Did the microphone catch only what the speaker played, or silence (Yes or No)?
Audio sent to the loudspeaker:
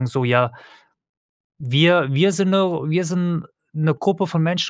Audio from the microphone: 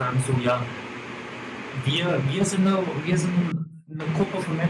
Yes